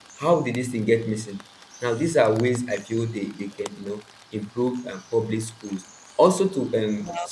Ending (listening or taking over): listening